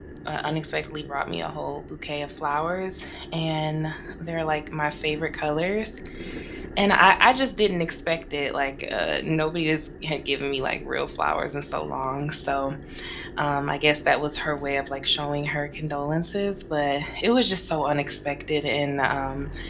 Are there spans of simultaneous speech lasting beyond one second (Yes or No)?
No